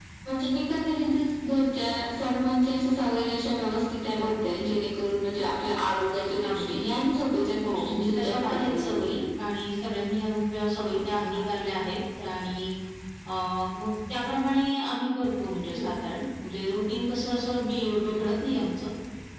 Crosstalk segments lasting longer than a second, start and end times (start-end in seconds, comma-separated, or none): 7.6-9.1